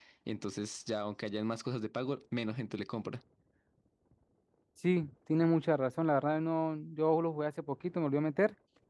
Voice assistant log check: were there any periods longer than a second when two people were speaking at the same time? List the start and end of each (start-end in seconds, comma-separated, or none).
none